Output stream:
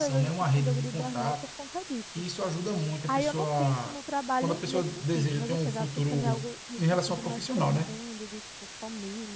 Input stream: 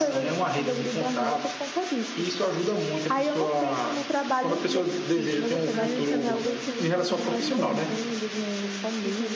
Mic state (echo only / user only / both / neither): both